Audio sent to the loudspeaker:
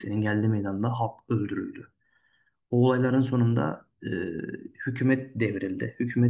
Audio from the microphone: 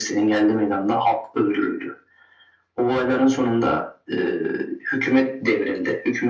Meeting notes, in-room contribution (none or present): none